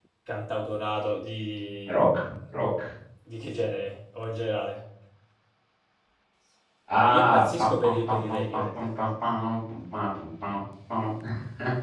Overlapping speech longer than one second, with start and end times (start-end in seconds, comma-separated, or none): 6.9-8.9